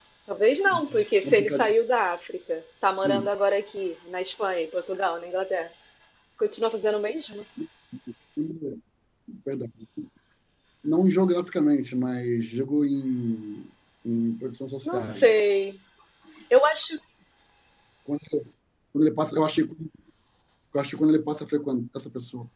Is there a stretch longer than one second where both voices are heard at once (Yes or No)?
No